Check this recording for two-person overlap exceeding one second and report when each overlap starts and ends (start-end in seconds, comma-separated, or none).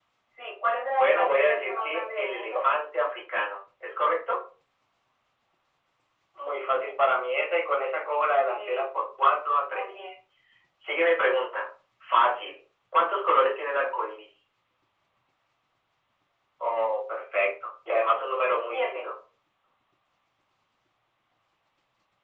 0.9-2.6